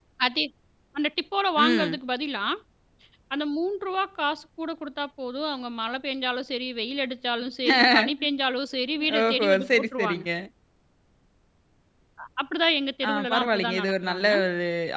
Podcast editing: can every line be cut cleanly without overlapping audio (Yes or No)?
No